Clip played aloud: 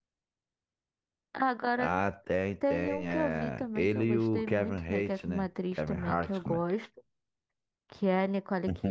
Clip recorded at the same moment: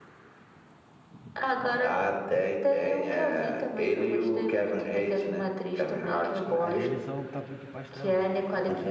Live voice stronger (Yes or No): No